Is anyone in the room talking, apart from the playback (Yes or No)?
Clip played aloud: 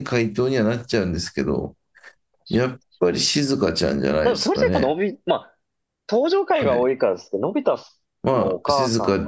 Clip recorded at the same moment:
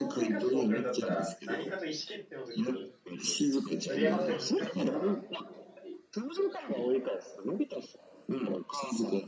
Yes